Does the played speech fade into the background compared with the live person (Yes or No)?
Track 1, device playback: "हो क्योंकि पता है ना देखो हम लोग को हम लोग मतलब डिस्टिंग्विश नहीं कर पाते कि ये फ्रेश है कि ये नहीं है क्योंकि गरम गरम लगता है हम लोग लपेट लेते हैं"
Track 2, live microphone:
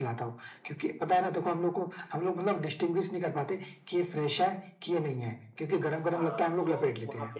No